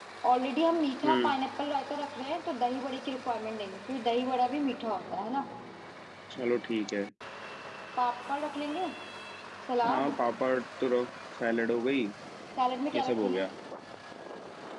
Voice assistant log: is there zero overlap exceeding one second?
Yes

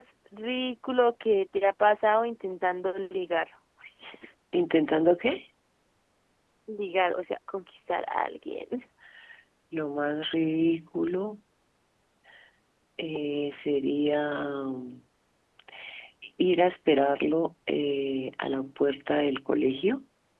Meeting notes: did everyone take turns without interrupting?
Yes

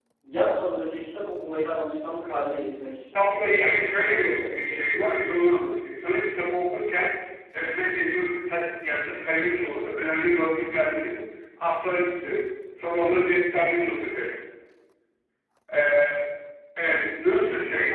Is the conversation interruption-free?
No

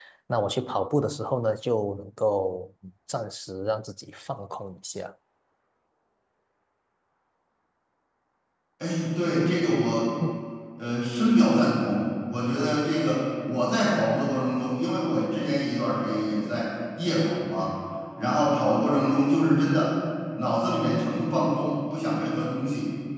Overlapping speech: No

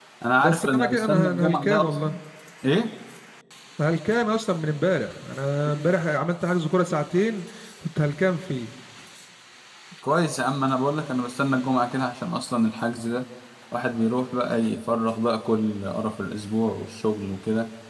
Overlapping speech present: Yes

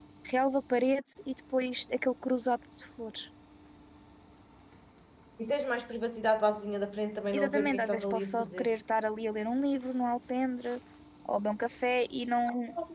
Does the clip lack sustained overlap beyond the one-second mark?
No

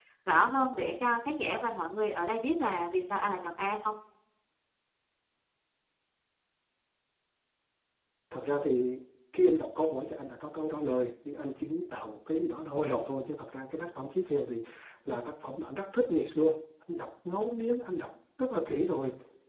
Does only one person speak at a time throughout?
Yes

